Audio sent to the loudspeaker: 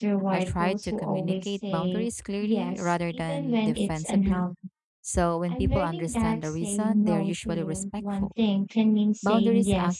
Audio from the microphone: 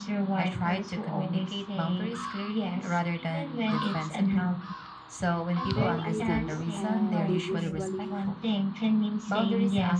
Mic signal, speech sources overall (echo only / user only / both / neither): both